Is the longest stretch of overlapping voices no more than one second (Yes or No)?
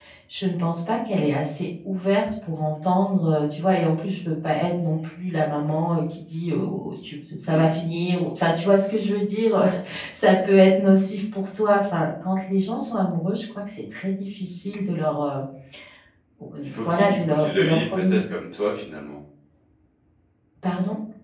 No